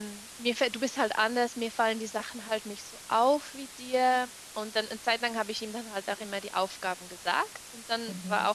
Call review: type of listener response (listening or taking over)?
listening